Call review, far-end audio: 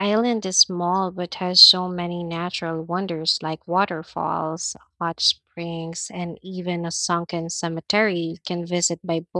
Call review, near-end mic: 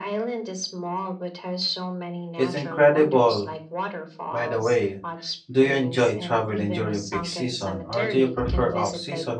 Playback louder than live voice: No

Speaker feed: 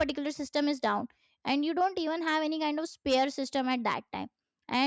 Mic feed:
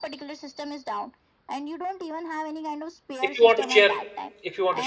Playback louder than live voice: No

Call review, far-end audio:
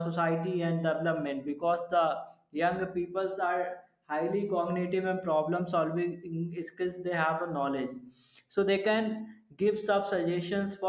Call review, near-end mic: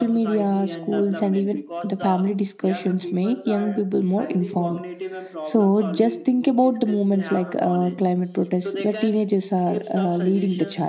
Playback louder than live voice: No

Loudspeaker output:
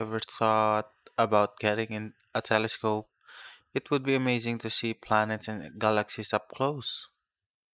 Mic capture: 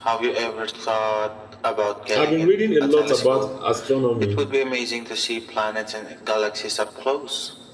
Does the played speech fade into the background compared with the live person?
Yes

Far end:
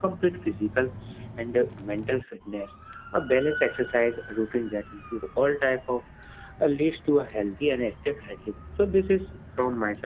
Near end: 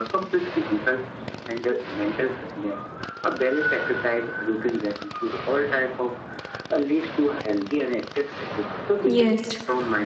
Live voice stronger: Yes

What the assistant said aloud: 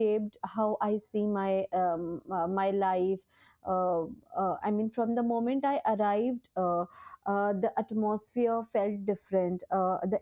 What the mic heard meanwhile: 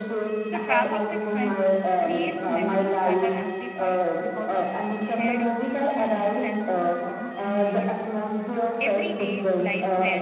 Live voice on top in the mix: No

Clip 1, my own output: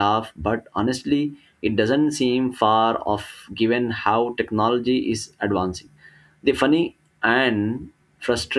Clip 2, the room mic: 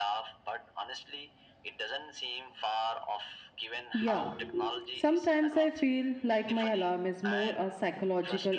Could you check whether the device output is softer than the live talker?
Yes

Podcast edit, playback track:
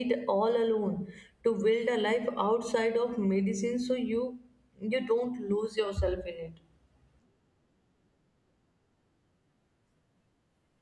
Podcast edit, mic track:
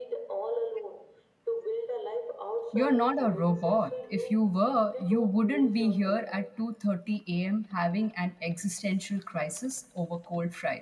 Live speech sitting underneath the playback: No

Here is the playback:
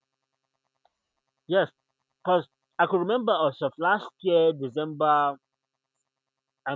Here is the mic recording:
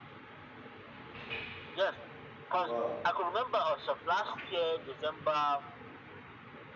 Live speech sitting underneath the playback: Yes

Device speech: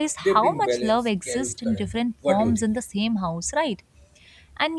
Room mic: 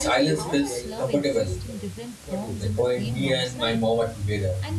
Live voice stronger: Yes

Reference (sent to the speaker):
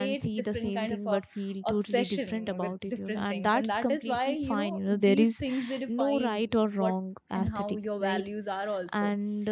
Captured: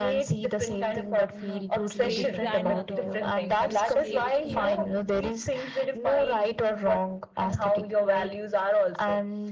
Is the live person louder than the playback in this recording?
No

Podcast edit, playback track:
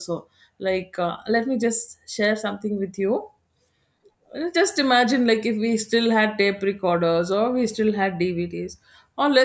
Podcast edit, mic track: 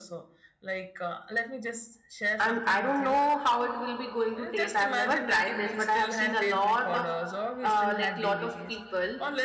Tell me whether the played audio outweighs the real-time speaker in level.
No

